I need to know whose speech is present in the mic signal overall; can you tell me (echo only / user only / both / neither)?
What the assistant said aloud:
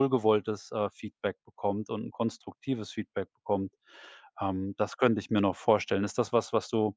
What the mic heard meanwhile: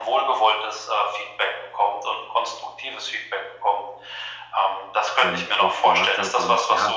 both